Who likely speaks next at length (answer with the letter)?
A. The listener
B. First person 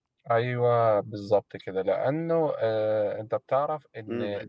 B